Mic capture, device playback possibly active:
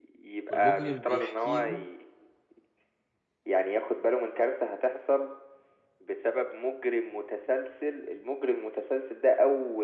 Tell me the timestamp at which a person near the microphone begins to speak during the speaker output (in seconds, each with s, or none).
0.5 s